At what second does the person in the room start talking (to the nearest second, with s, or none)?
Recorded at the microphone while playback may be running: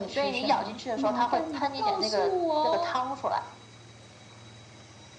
none